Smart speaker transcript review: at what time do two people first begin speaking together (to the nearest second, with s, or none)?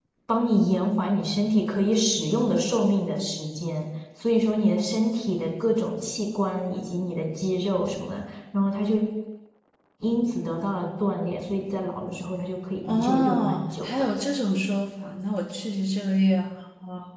13 s